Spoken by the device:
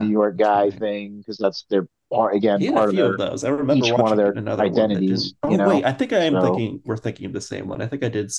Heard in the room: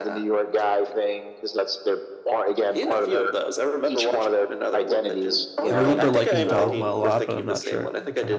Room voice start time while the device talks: 5.7 s

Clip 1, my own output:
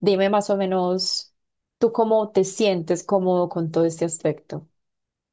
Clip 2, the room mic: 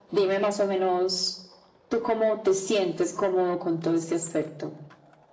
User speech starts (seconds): none

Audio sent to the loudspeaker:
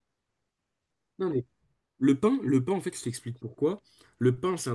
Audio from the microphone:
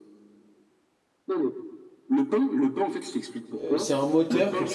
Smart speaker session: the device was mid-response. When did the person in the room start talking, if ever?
3.6 s

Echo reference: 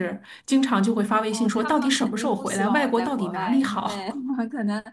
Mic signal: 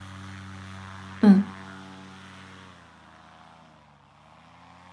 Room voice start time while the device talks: 1.2 s

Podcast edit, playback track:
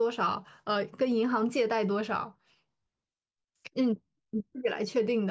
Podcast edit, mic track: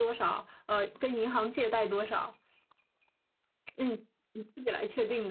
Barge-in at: none

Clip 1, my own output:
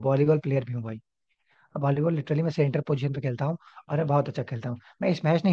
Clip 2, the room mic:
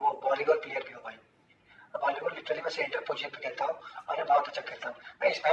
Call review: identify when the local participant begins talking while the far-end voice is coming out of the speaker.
none

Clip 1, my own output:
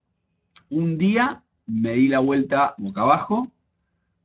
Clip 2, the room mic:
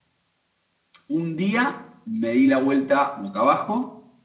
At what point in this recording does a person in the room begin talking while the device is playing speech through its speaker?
none

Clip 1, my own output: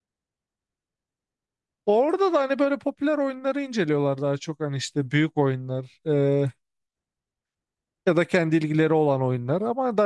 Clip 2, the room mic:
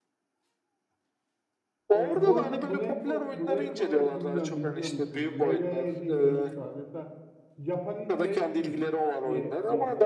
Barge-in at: 1.9 s

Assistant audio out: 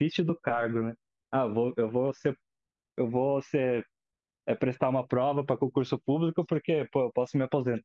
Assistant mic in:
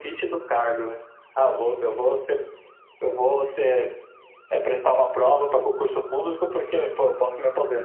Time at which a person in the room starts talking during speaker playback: none

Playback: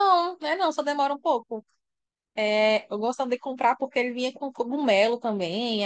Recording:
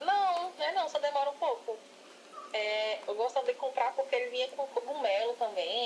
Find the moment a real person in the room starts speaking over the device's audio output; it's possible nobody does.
none

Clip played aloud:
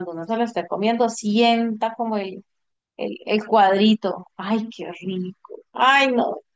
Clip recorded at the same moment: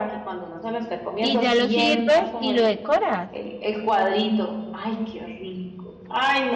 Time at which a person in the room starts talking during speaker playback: 1.2 s

